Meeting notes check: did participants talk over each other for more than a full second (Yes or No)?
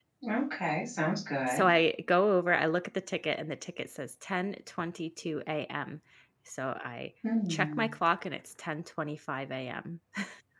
No